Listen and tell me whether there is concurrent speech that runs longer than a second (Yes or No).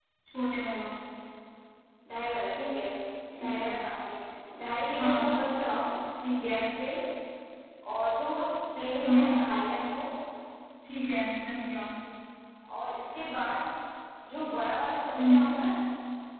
No